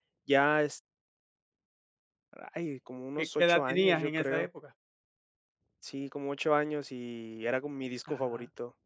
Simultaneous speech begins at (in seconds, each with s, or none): 3.2 s